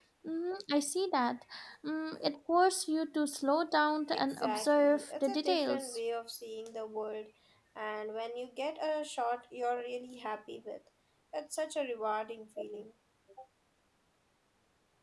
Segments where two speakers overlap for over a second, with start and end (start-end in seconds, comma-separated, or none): 4.1-6.0